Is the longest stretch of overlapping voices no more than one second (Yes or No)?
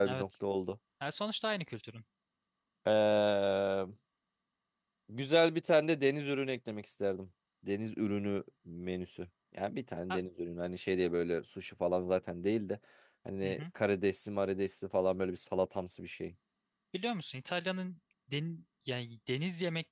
Yes